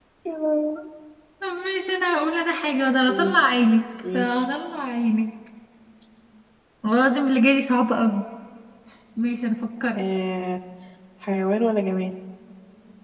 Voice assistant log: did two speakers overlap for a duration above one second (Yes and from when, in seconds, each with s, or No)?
No